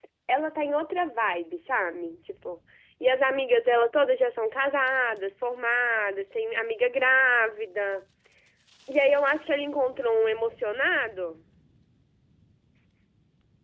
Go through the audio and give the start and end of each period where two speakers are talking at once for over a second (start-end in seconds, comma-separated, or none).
none